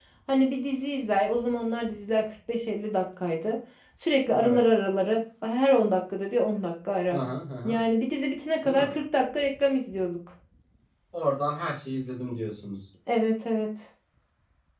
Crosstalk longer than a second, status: none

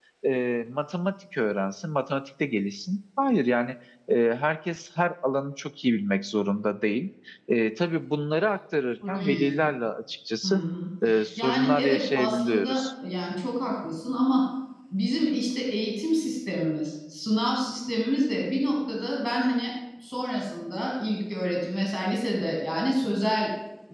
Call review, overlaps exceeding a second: present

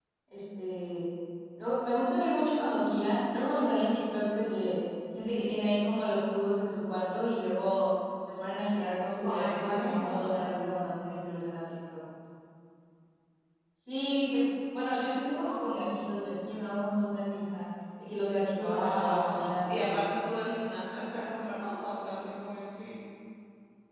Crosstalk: present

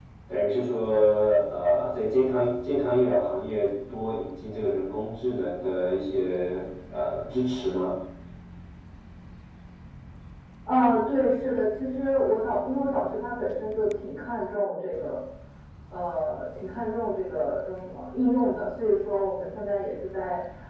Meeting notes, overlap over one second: none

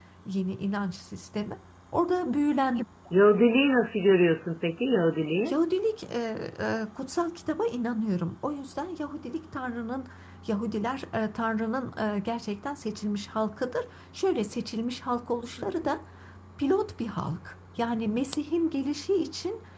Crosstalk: none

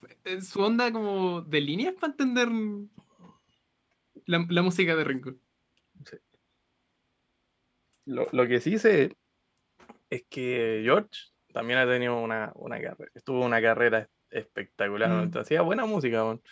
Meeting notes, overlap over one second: none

